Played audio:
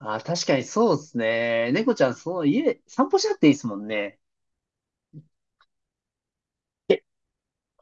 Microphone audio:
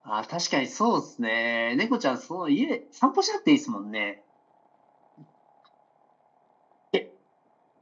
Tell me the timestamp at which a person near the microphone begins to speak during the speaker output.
none

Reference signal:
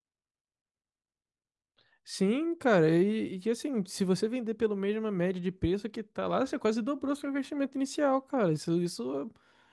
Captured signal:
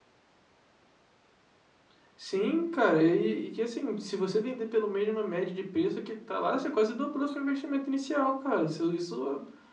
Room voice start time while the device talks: none

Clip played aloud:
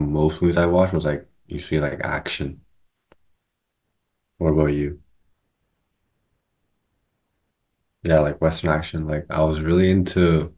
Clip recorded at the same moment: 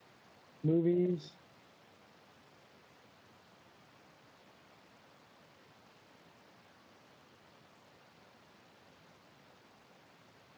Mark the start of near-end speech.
0.6 s

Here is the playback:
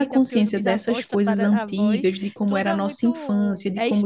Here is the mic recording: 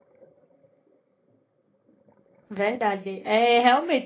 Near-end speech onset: 2.5 s

